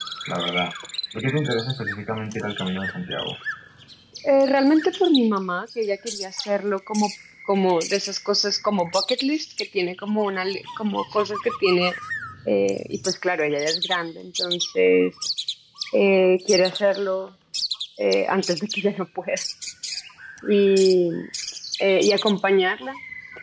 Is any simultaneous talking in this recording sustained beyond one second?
No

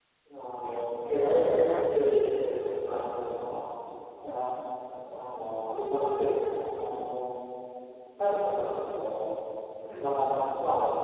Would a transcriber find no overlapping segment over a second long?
No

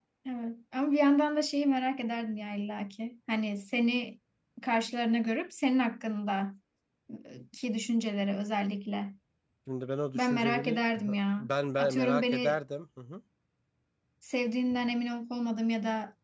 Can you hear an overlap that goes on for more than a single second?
Yes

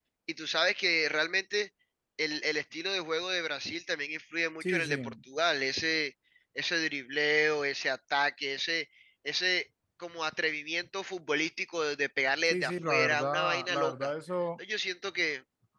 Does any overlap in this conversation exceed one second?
Yes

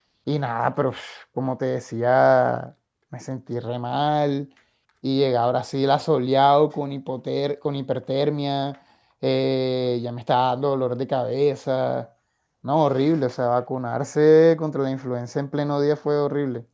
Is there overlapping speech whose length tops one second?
No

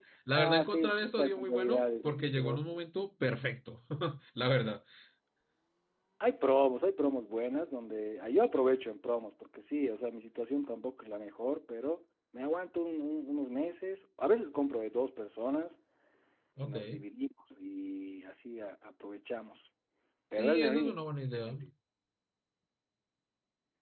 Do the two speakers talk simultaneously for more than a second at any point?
Yes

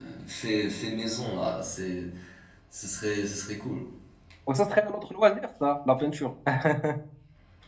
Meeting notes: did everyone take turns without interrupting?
Yes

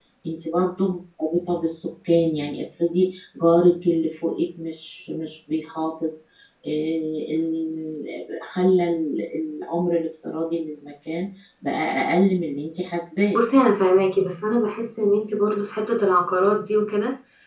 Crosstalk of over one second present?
No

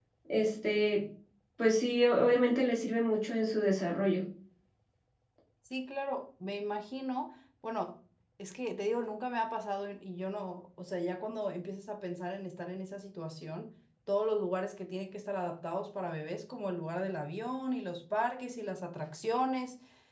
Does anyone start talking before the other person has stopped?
No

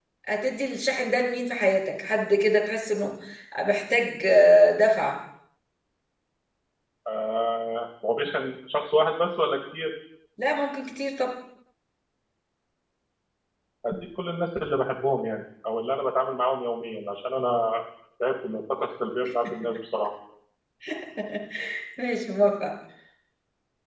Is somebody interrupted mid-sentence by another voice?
No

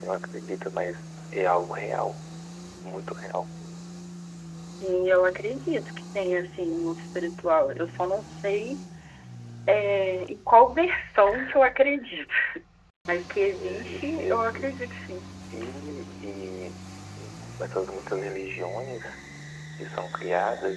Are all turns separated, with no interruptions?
No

